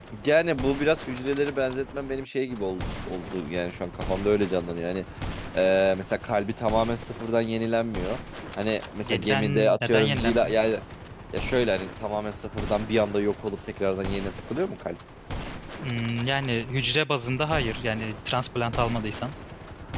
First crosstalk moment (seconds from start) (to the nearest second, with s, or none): 9 s